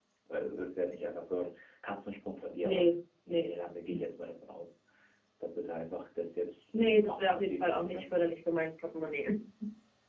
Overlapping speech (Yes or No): Yes